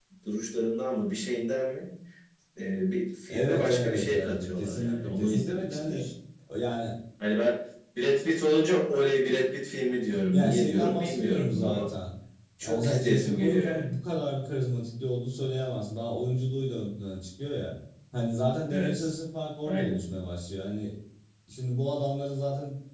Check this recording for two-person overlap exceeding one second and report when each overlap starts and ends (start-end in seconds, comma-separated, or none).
3.3-6.1, 10.3-11.9, 12.6-13.9